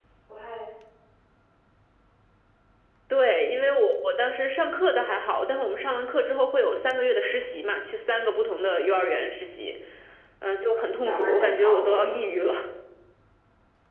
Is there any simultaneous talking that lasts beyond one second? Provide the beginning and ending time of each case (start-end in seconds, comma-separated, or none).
11.0-12.2